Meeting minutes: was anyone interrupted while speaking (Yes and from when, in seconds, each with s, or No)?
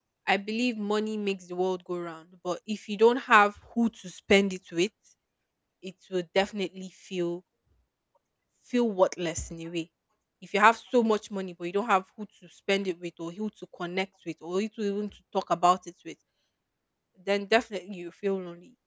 No